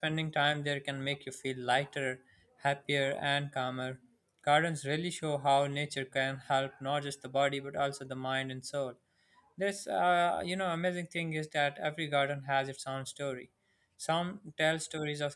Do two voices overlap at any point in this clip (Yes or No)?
No